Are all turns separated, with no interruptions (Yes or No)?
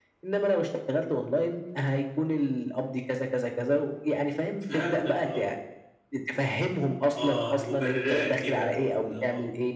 No